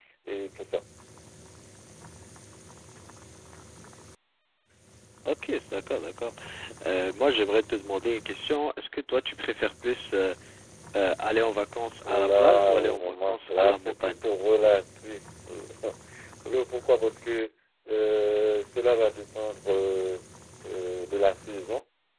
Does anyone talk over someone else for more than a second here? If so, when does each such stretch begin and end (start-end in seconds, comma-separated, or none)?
12.1-14.2